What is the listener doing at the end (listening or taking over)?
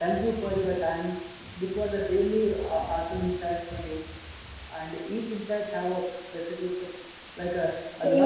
listening